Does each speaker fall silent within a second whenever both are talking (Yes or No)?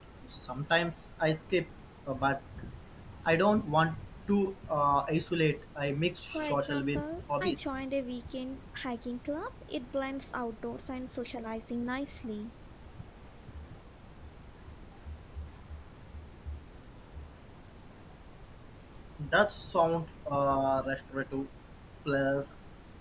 No